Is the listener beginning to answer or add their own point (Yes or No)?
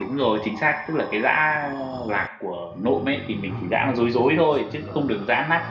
No